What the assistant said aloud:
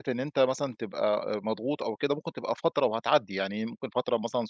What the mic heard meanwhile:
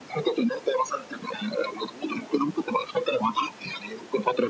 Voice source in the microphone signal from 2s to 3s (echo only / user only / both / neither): echo only